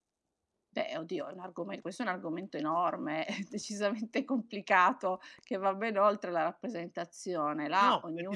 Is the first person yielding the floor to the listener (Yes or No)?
Yes